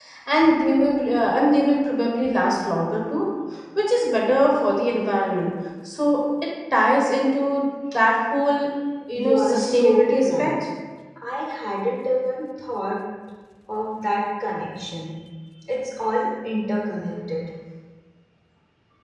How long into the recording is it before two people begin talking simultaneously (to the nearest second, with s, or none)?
9 s